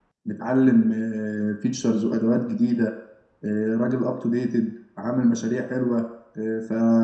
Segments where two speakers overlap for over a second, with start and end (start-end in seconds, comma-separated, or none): none